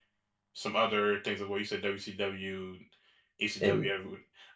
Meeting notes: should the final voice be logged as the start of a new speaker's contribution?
No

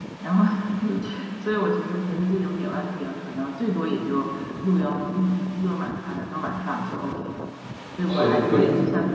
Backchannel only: Yes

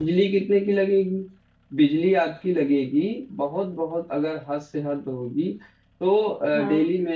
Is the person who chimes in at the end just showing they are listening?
Yes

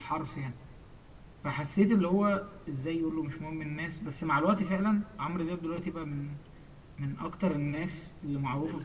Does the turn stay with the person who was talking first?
No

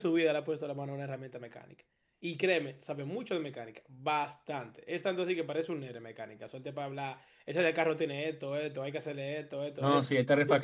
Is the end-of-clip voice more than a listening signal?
Yes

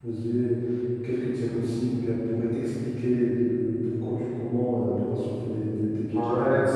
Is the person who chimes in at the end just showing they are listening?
No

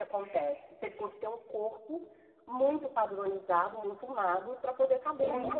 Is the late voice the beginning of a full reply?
Yes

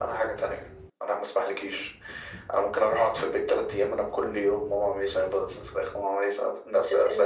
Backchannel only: Yes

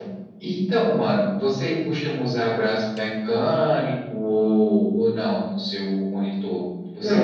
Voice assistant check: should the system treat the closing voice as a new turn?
Yes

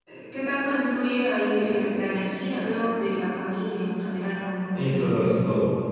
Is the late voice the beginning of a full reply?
Yes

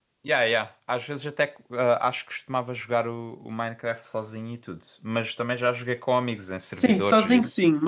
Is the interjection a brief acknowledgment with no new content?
No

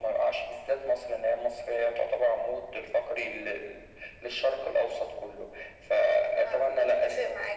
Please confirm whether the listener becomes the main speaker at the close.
Yes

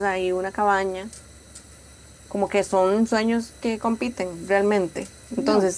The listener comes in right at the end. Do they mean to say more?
No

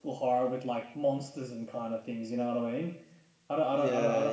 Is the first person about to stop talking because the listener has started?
No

